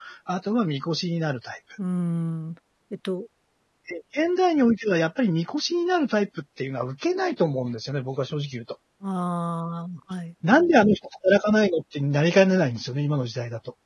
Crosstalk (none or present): none